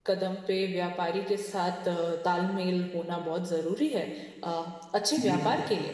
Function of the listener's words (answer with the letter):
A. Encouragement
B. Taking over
A